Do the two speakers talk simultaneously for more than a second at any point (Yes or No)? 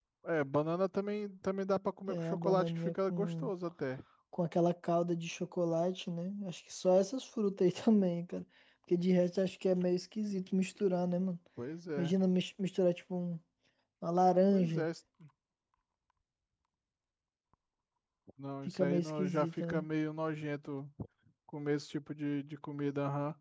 Yes